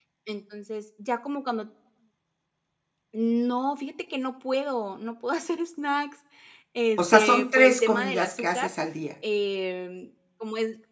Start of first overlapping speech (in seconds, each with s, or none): 7.0 s